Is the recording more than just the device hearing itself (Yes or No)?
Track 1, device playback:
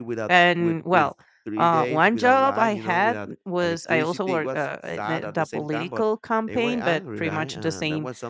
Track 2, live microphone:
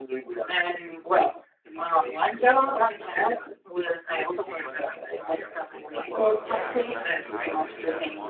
Yes